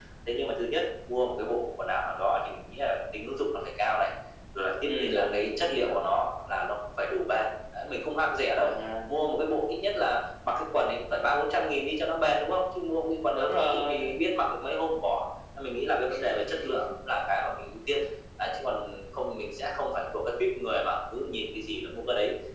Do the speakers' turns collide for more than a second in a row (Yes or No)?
Yes